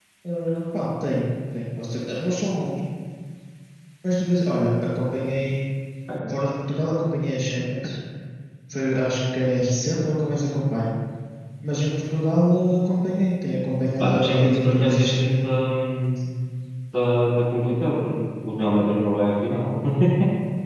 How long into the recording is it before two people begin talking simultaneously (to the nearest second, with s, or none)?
14 s